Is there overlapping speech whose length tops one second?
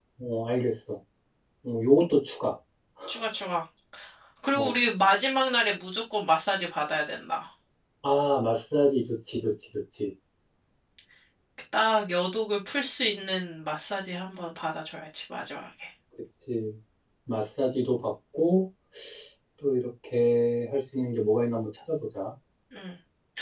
No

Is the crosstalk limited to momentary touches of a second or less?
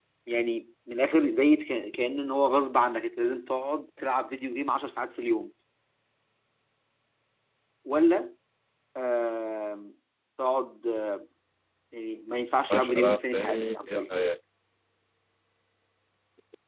No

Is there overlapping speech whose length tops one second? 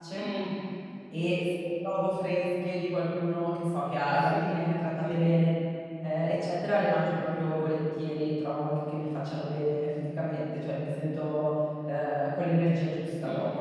No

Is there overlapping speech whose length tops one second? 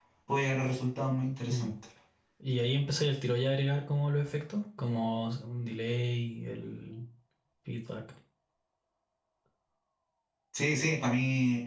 No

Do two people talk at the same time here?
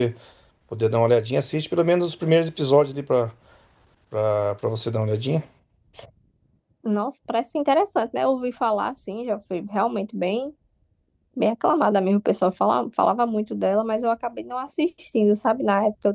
No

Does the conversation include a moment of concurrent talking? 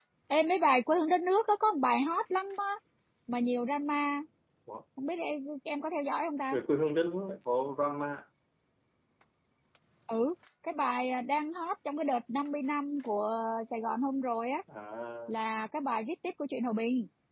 No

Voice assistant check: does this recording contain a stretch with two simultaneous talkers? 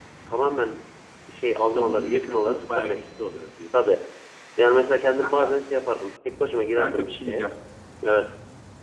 Yes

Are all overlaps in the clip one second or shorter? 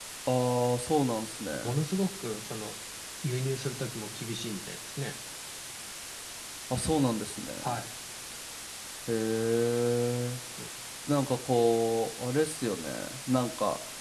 Yes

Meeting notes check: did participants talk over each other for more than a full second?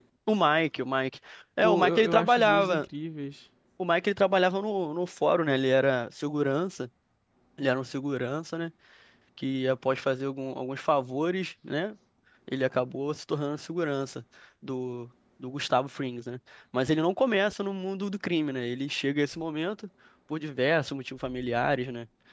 Yes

